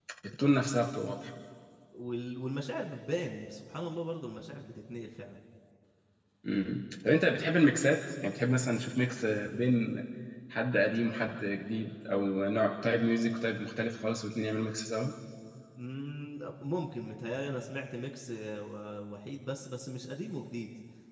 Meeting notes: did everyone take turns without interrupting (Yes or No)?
Yes